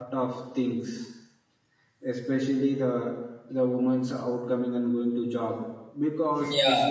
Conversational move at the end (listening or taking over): taking over